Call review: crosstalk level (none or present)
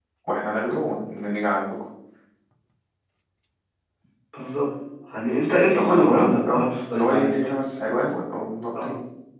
present